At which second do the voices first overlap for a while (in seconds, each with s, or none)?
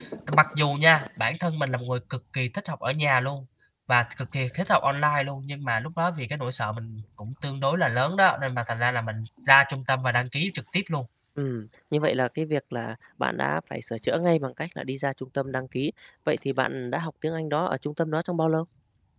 none